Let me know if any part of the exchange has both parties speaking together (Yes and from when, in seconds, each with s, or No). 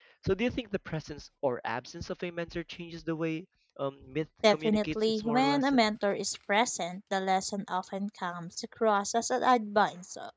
Yes, from 4.4 s